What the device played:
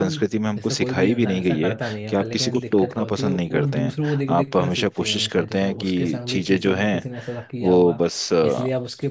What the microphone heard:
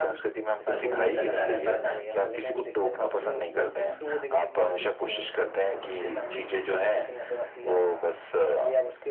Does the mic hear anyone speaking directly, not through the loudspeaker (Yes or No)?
Yes